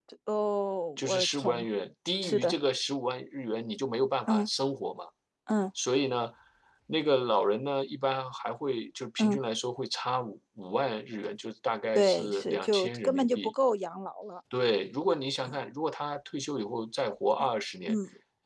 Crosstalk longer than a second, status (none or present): present